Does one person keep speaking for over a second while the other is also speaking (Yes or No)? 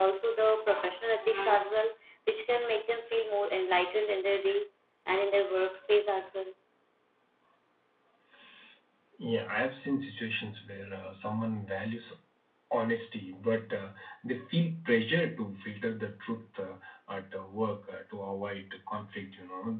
No